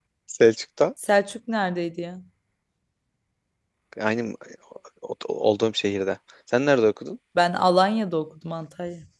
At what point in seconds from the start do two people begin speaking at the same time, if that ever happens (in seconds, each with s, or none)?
none